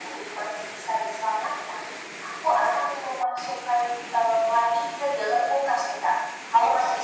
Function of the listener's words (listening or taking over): listening